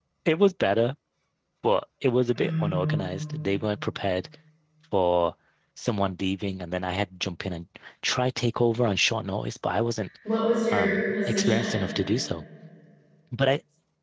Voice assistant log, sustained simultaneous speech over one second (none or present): present